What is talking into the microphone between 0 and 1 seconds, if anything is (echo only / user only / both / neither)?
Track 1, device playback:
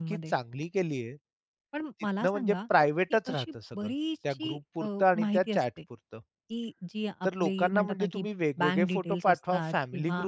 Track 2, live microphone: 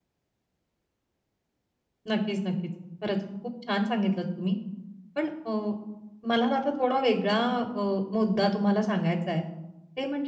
neither